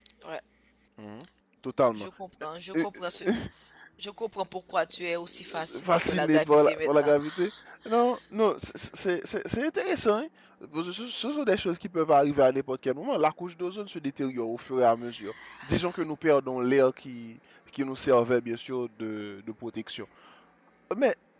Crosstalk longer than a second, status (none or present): present